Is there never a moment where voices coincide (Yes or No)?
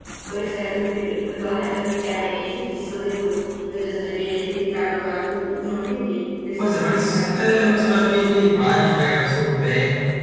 No